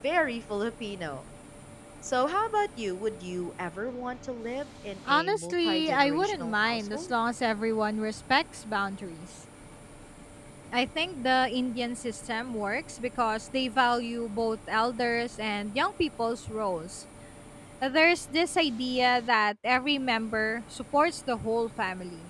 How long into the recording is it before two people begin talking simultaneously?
5.0 s

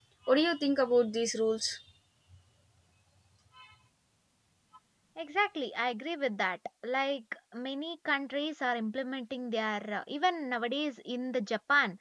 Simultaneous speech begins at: none

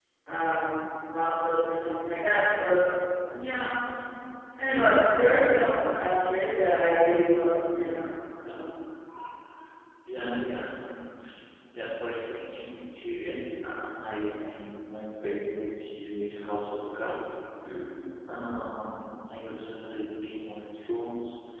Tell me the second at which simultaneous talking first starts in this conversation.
none

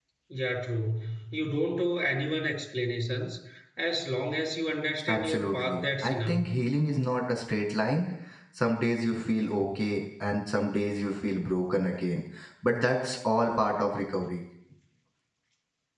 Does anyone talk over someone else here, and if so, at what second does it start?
5.1 s

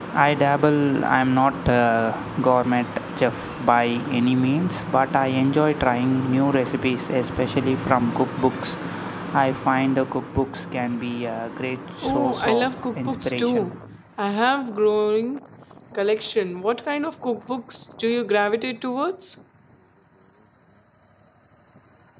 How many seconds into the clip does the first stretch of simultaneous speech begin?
12.0 s

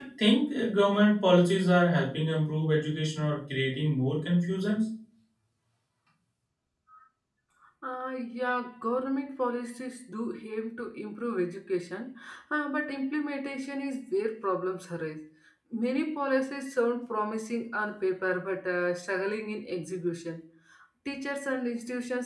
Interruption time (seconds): none

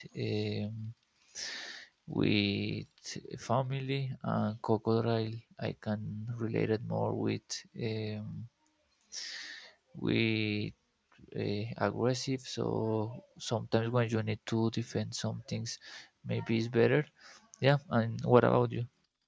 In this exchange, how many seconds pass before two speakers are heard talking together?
none

